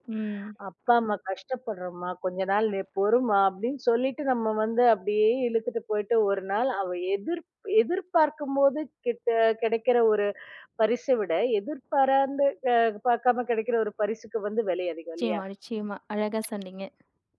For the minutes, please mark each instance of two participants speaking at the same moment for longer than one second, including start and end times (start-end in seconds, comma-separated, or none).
none